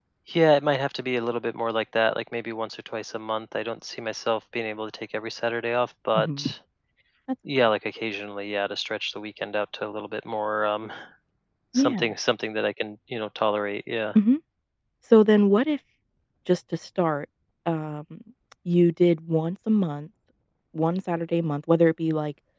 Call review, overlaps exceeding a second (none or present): none